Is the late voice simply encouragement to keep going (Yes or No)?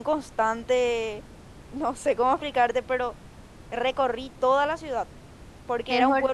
No